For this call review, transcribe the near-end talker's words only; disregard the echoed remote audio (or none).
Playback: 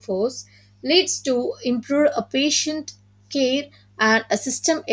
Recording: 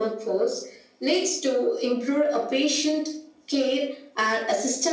none